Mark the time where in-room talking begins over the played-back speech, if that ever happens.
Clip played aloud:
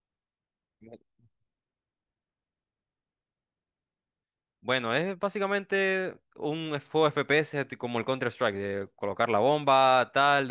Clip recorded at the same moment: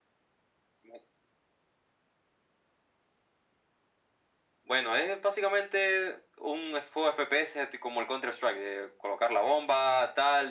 none

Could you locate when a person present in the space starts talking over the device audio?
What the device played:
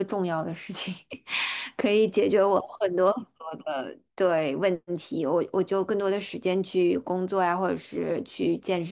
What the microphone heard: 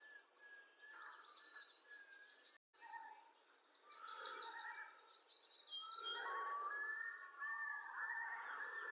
none

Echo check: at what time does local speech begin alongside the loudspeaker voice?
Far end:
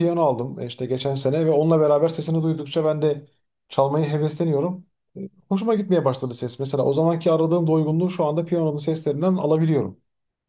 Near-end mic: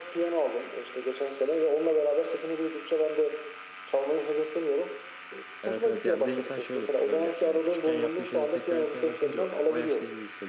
5.6 s

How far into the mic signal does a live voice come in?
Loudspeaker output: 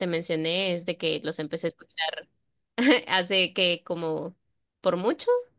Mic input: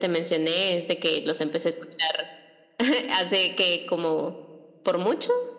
none

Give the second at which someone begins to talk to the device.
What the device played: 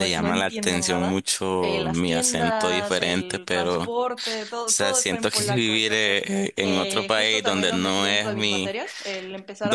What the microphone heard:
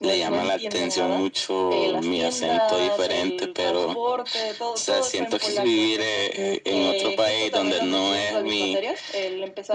none

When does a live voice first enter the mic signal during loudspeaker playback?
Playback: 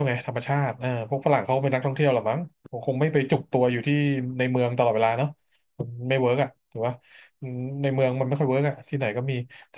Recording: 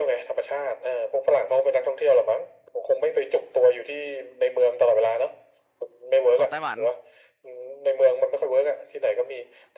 6.3 s

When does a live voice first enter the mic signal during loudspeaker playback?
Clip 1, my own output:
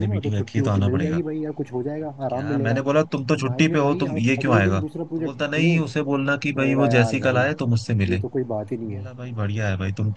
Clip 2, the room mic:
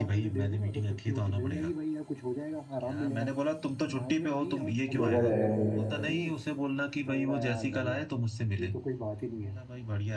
5.0 s

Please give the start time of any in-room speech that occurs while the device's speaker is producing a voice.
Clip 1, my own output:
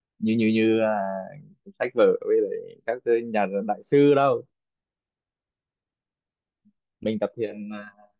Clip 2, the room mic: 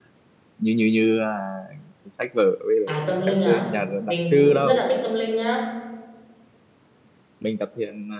2.9 s

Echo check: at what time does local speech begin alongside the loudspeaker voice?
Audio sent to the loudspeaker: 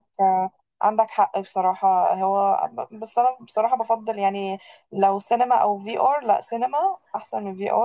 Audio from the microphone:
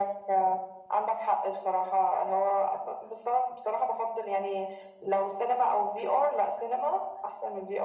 none

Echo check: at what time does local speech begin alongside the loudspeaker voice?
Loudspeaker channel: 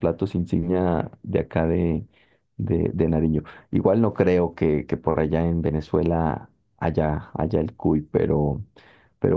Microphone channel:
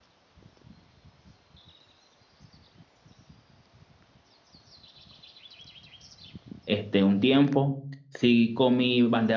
6.6 s

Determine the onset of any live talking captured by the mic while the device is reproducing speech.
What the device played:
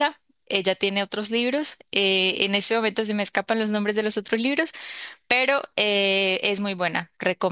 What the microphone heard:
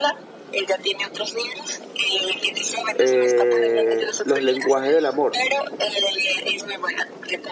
2.9 s

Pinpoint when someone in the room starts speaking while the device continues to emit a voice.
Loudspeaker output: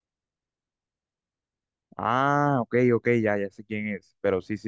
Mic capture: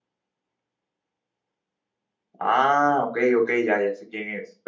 none

